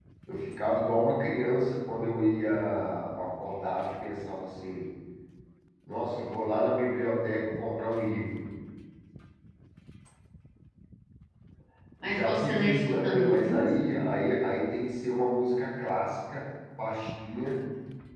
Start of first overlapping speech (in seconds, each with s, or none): 12.1 s